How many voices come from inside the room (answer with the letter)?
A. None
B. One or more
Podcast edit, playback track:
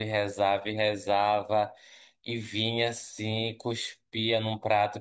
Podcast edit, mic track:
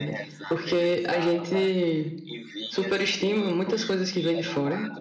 B